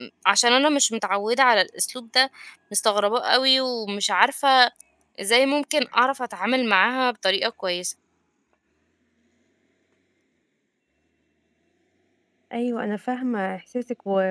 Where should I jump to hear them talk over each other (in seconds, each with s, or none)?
none